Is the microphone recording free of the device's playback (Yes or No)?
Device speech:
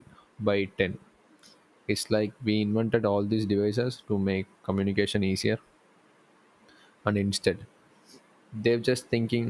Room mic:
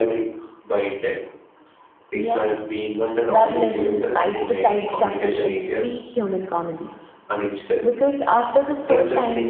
No